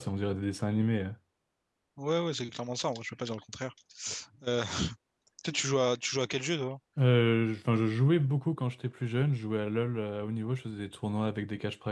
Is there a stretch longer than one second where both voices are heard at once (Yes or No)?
No